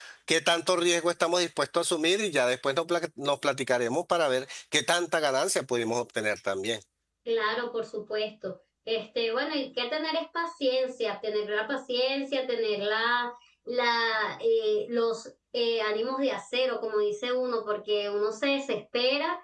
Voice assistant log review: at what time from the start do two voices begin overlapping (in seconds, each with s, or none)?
none